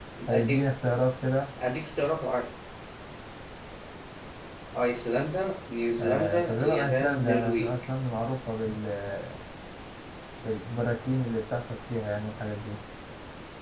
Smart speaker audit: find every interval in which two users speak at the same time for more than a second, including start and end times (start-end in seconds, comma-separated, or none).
6.0-7.8